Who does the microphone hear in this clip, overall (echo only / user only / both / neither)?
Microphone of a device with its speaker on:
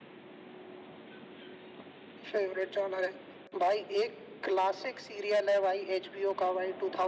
echo only